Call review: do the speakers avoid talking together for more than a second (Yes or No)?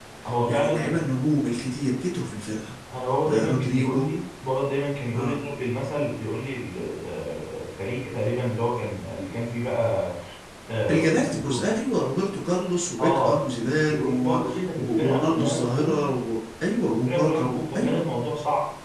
No